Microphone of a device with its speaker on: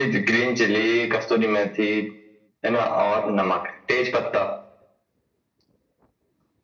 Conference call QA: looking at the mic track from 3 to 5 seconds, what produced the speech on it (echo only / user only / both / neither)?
echo only